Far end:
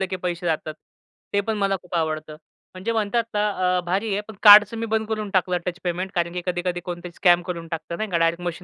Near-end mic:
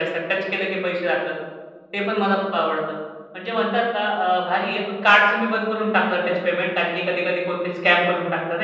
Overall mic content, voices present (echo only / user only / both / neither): echo only